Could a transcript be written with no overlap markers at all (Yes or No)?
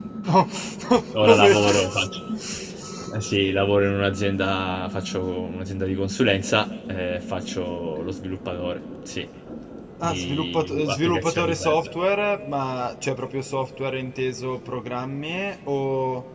No